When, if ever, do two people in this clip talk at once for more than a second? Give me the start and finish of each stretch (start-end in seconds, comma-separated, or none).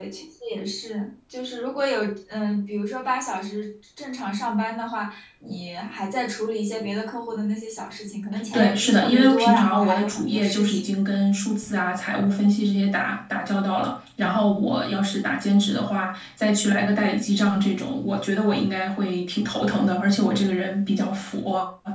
8.5-10.9